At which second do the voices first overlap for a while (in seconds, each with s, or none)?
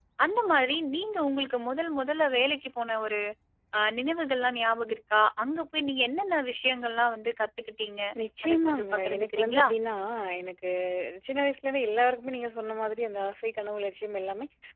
8.4 s